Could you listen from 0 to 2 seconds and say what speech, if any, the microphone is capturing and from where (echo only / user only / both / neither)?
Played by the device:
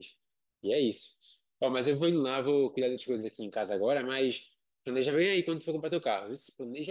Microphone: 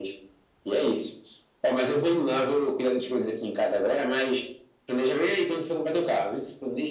echo only